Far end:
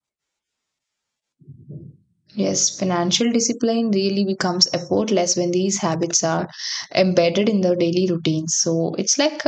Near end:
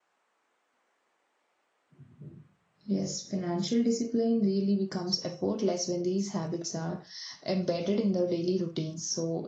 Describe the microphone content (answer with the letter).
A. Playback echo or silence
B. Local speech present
A